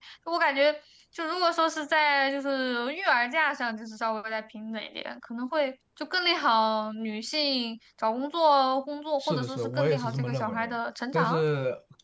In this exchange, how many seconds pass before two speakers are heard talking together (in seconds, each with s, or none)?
9.2 s